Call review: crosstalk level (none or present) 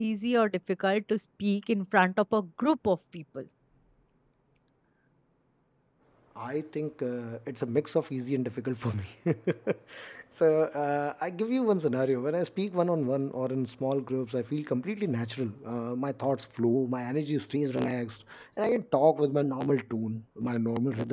none